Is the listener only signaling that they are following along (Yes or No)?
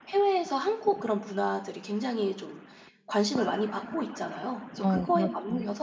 Yes